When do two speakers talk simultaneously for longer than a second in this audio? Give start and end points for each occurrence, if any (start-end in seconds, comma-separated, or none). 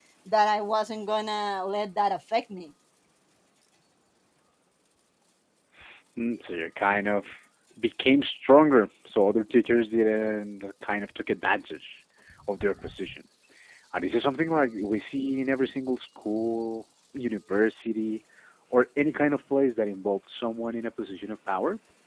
none